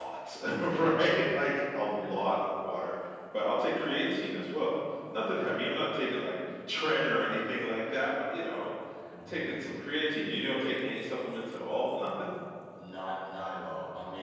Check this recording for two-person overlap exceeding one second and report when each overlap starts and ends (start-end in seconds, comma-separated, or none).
none